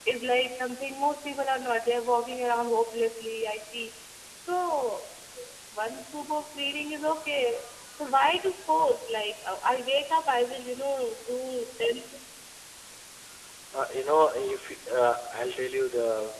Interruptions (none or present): none